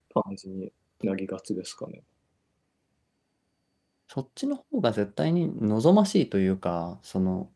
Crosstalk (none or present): none